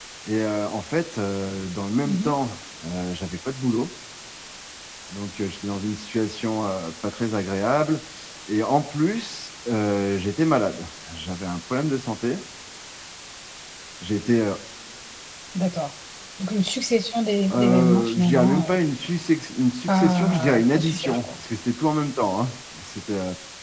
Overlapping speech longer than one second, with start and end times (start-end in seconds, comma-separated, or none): 17.5-18.8, 19.9-21.3